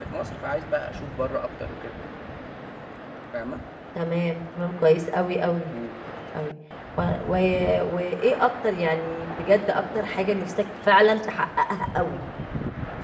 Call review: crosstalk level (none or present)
none